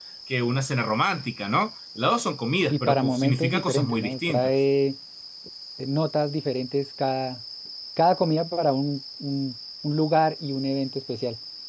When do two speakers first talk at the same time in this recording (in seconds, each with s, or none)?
2.7 s